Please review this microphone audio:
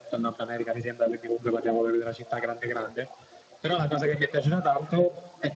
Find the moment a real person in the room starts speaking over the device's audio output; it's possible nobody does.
none

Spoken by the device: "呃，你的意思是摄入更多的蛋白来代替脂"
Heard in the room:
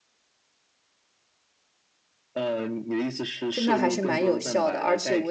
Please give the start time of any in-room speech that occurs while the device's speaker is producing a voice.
3 s

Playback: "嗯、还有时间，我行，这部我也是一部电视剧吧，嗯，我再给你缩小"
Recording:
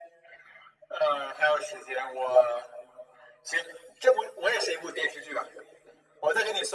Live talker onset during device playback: none

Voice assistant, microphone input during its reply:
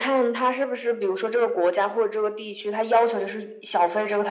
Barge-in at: none

